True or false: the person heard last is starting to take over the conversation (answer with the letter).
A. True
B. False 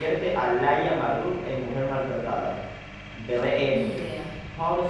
B